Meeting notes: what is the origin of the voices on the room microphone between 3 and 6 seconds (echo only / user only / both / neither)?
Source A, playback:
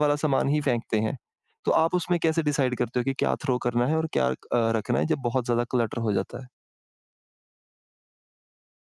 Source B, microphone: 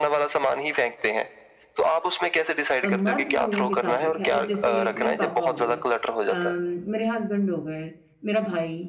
both